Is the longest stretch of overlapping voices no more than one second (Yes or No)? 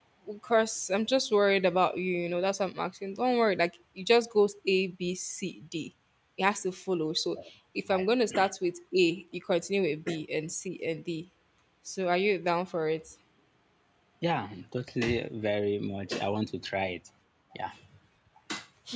Yes